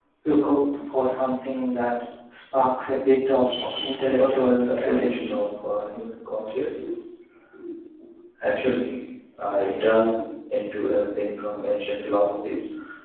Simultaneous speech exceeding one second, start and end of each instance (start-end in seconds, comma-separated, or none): 4.0-5.4